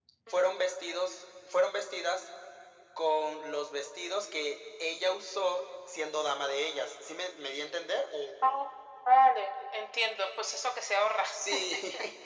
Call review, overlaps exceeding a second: none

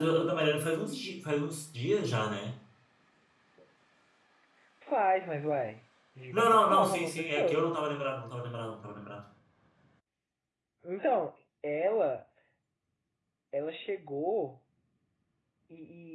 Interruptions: present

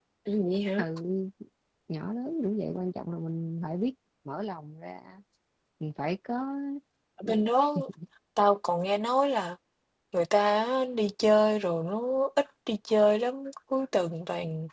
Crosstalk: none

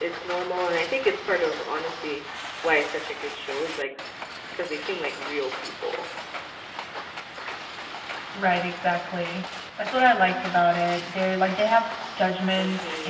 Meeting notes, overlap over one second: none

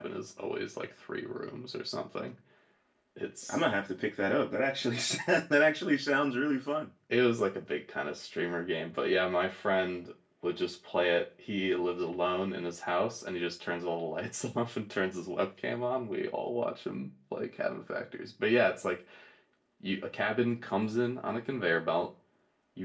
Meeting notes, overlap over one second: none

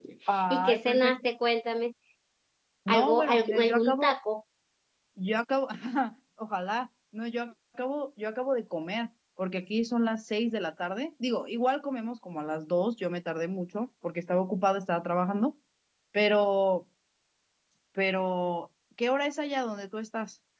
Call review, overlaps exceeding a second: present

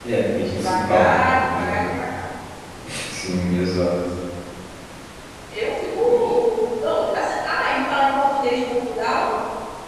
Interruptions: present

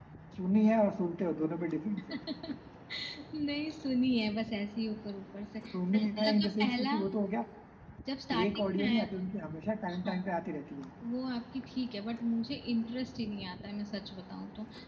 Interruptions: present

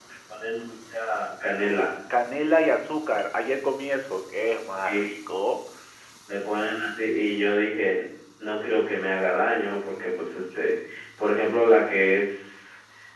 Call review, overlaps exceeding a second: none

